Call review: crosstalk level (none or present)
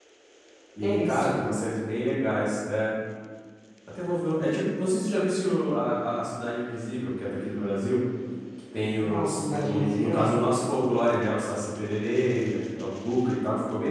present